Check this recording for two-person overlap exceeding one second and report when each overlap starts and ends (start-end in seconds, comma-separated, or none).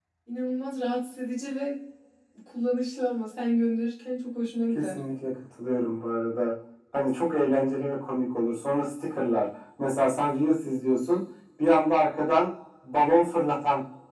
none